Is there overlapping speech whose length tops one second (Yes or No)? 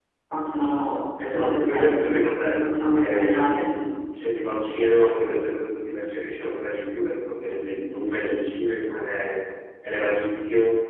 Yes